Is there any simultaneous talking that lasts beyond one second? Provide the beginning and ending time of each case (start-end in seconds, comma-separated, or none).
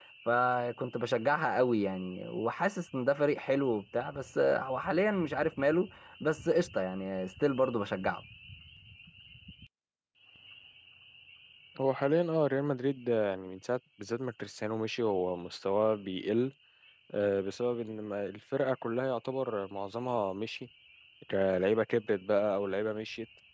none